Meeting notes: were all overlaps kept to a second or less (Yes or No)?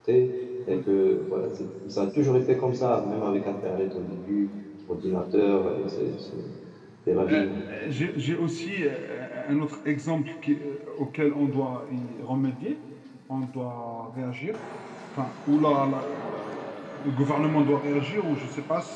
Yes